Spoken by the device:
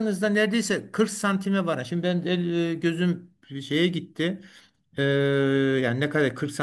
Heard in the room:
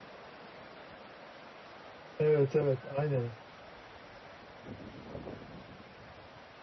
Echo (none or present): none